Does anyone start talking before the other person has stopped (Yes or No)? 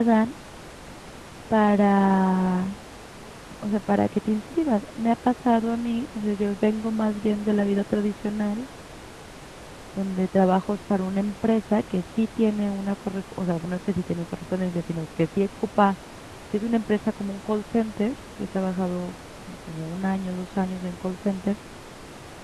No